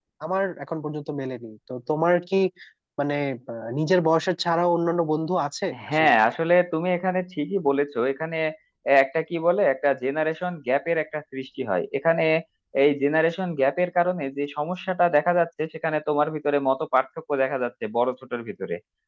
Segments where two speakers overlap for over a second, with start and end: none

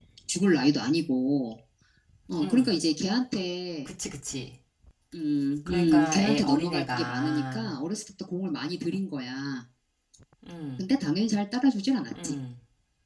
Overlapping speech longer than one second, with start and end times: 5.7-7.7

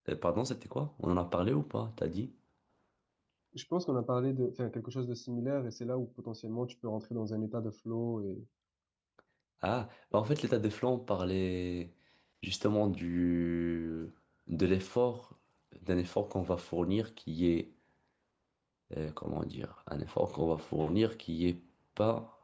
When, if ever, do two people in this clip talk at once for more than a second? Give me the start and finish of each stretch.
none

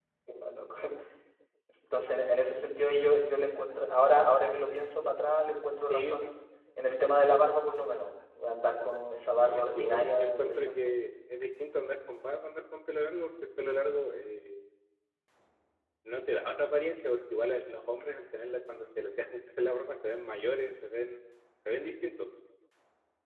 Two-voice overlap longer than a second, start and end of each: 9.4-11.0

